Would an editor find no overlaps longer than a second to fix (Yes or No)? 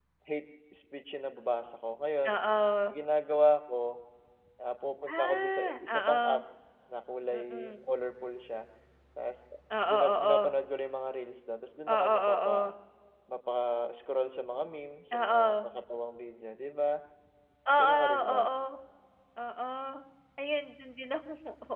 No